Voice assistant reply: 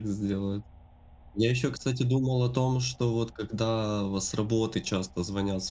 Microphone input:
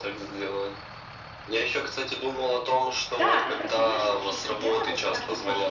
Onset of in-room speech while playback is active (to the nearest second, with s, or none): 3 s